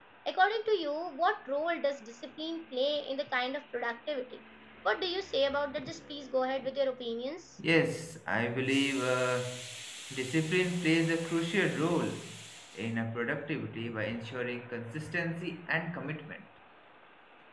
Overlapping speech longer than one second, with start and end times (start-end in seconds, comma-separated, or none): none